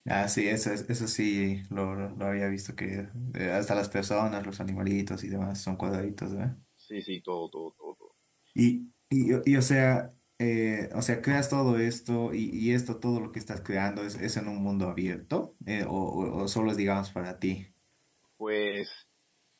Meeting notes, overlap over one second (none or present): none